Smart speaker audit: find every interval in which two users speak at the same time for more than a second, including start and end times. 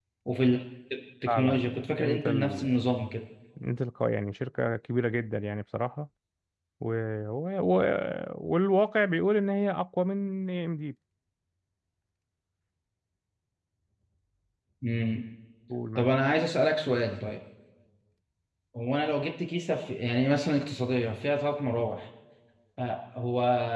1.3-2.7

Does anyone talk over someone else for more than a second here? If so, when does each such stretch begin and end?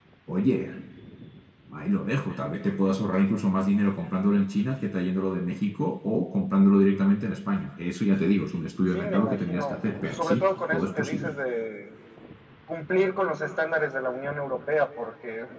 8.9-11.4

